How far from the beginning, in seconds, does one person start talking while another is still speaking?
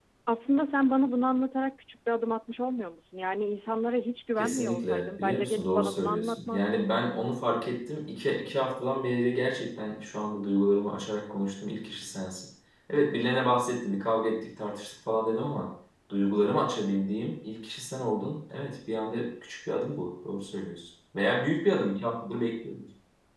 4.4 s

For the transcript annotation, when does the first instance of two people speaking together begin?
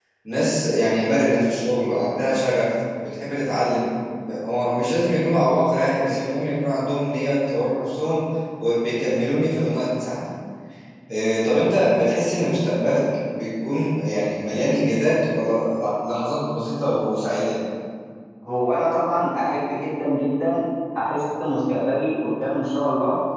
none

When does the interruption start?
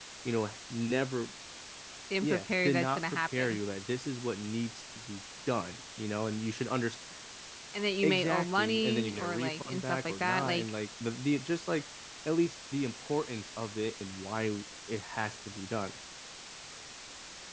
2.2 s

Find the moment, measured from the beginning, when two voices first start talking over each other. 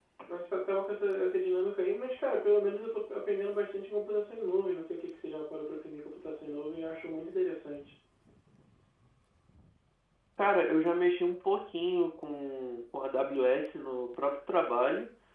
none

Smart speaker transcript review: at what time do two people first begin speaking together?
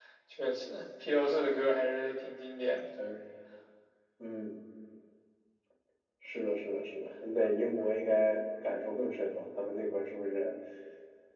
none

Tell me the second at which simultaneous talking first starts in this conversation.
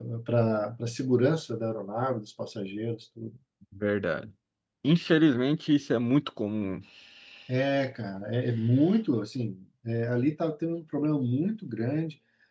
none

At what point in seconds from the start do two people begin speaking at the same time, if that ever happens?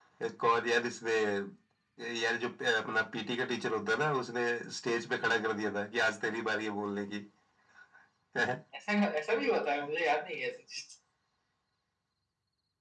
none

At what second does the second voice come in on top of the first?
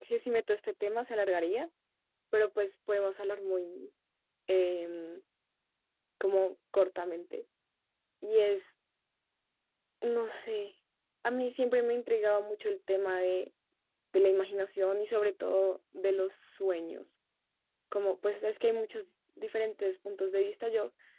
none

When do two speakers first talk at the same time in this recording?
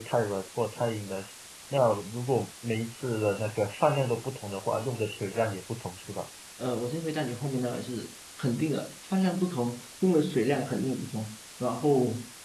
none

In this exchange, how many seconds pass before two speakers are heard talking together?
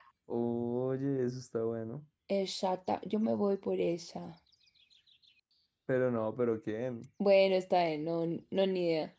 none

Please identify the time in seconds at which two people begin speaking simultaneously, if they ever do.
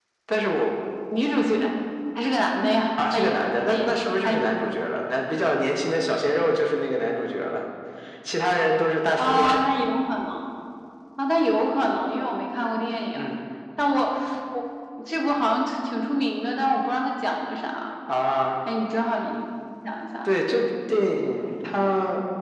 3.1 s

